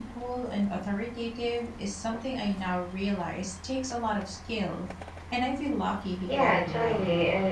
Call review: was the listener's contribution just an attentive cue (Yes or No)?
No